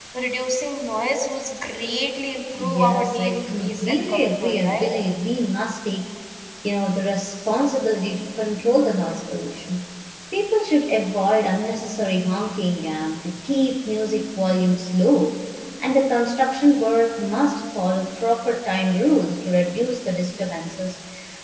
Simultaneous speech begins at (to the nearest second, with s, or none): 3 s